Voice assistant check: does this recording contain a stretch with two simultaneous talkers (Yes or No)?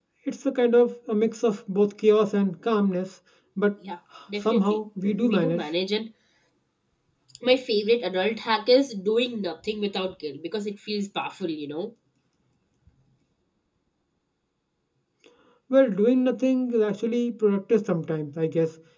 Yes